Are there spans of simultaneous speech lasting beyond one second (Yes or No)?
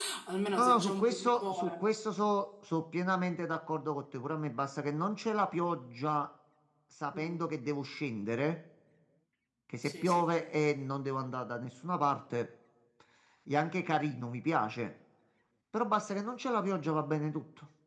Yes